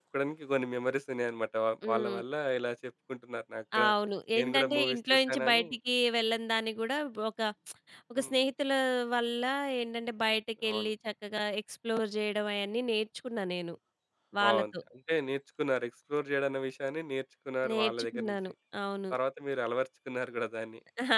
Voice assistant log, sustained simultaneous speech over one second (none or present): present